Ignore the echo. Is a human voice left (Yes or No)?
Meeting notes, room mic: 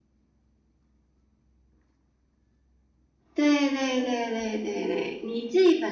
Yes